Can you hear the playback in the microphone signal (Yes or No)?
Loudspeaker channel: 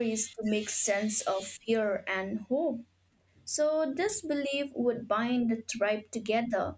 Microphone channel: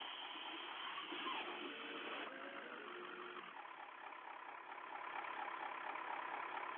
No